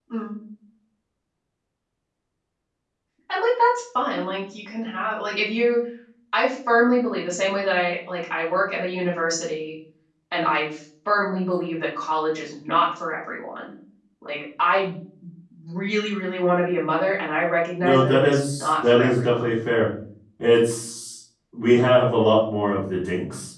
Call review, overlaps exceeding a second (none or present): present